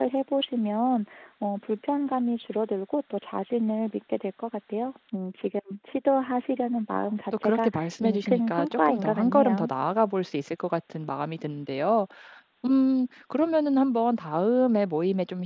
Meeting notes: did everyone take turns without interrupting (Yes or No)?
No